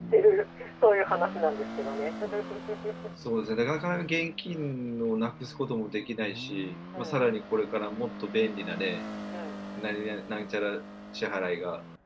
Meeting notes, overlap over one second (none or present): none